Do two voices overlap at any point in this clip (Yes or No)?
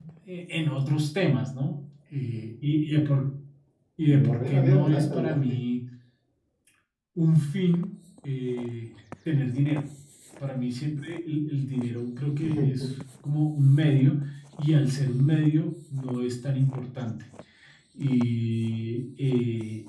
Yes